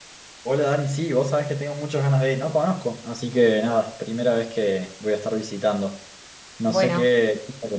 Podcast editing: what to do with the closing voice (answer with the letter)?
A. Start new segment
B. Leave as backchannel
B